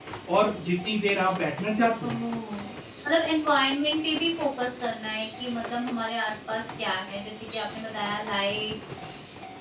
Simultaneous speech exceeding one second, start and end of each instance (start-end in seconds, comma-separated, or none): none